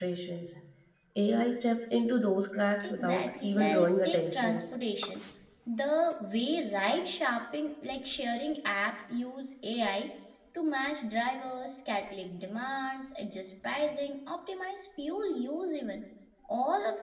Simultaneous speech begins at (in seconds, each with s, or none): 2.8 s